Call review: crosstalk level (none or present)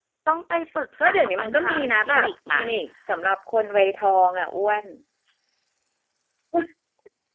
present